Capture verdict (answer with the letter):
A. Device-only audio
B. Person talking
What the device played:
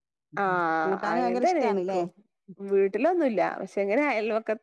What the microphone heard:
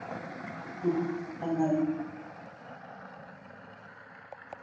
B